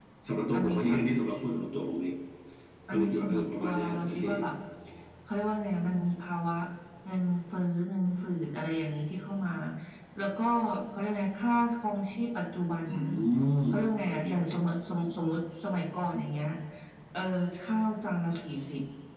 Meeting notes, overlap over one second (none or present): present